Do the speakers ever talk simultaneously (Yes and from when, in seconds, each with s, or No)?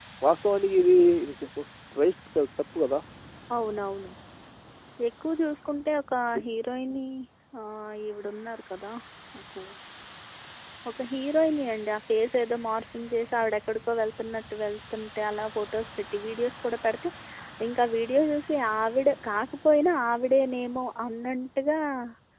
No